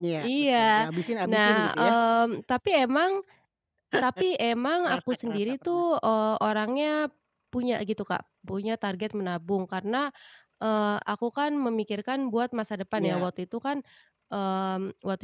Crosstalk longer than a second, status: present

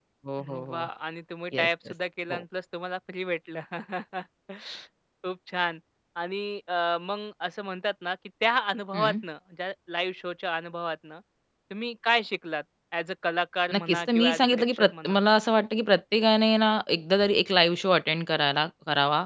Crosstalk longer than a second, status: present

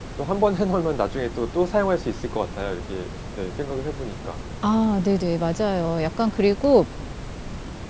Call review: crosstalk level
none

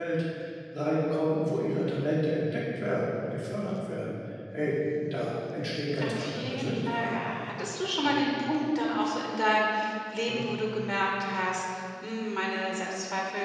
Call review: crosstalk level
present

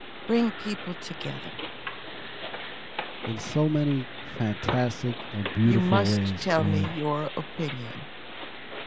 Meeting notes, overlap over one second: present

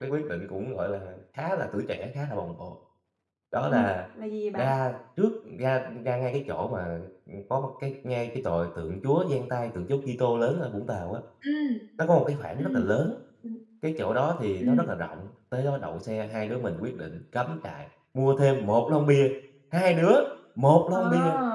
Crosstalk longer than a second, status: none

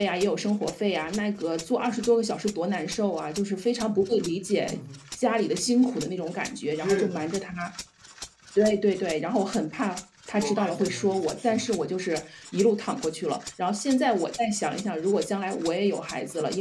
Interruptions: present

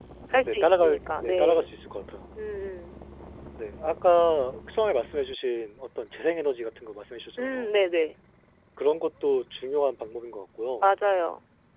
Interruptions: present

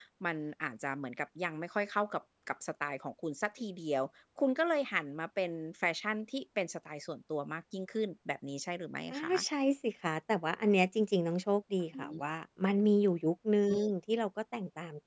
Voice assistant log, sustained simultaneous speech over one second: none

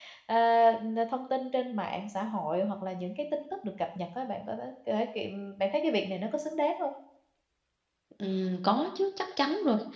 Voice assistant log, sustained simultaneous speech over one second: none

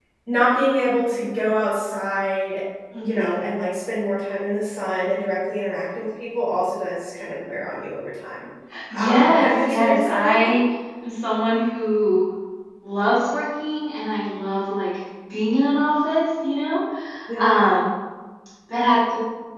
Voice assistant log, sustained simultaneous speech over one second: present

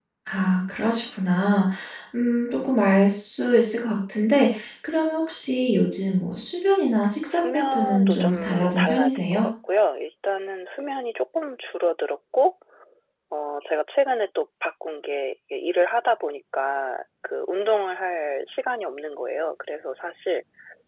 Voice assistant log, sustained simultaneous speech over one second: present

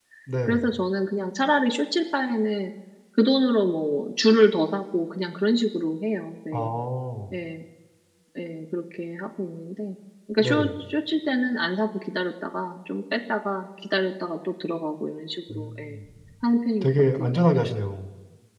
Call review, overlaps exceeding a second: none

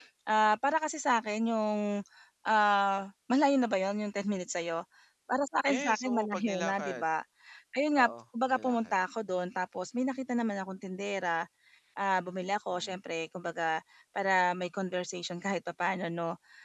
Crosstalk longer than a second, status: present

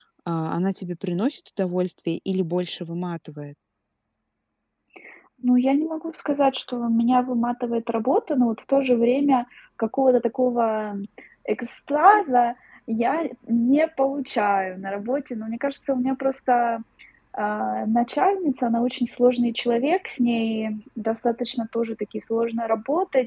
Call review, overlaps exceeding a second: none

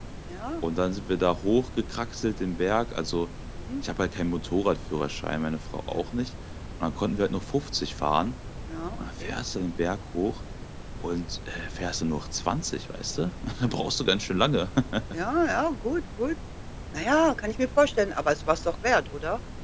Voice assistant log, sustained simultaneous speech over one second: none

